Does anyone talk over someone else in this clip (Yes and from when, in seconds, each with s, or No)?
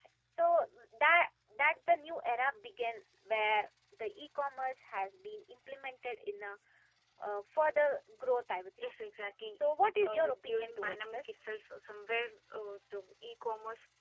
Yes, from 10.0 s